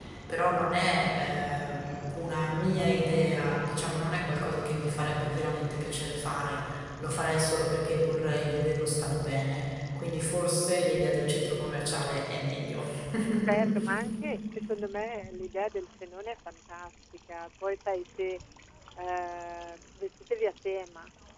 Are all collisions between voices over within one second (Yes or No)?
Yes